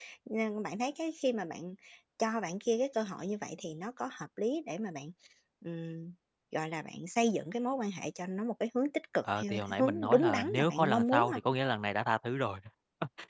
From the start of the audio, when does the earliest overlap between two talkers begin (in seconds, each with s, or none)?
9.2 s